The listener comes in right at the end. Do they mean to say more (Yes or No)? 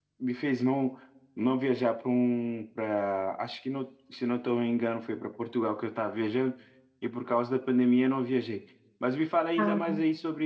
No